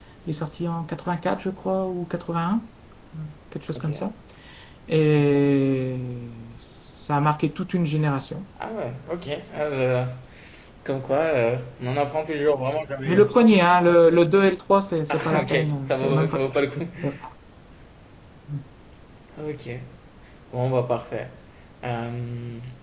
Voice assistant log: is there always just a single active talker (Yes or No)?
No